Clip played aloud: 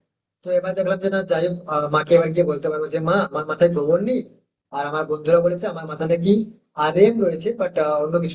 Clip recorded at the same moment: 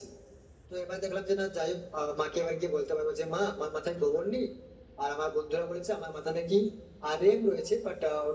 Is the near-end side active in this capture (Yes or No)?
No